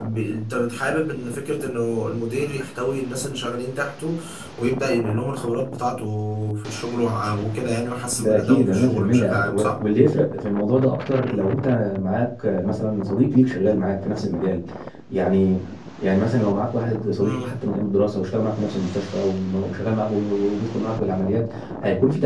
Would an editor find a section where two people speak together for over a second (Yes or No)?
Yes